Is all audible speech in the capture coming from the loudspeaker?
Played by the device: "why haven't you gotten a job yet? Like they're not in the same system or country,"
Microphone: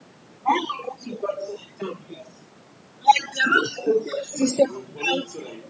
No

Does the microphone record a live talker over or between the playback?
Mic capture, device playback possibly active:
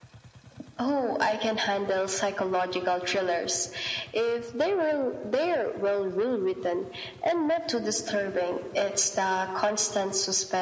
No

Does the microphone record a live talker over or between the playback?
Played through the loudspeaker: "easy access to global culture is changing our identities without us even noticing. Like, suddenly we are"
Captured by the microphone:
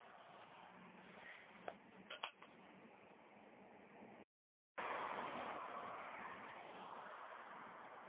No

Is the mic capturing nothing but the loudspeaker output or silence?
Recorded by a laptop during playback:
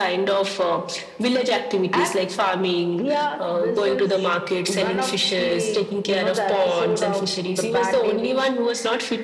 Yes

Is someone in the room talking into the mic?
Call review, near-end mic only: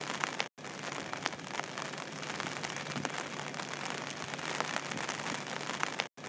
No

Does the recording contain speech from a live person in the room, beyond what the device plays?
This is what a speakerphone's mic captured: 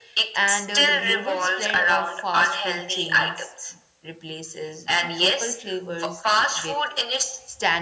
Yes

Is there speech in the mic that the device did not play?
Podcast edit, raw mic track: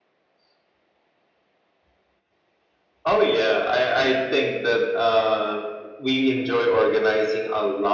No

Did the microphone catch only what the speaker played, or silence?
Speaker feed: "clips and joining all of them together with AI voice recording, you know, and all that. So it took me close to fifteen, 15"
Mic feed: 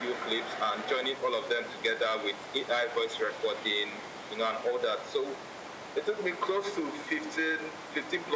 Yes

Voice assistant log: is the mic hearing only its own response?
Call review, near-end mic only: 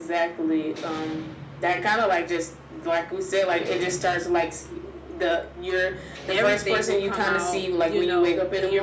No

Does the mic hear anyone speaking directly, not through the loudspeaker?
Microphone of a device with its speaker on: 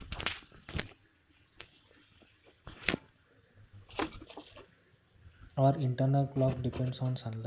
Yes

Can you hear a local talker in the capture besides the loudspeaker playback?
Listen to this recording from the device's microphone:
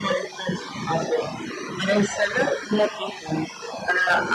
No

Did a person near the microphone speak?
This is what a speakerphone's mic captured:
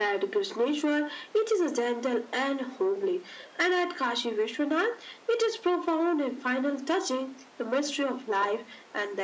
No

